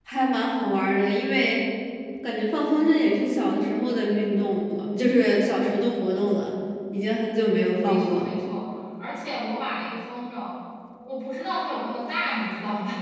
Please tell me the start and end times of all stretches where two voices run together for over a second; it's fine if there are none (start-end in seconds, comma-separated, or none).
none